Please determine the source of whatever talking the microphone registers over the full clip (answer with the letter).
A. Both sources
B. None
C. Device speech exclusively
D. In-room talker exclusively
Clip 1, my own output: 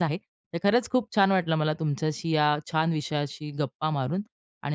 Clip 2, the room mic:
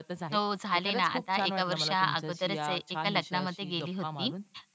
A